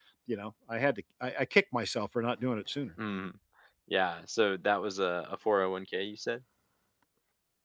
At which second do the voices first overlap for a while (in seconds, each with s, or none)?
none